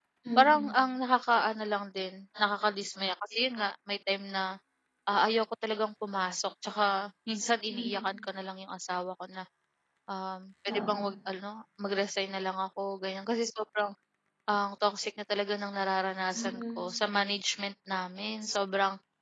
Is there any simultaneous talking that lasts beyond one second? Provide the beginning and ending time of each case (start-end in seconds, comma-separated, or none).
none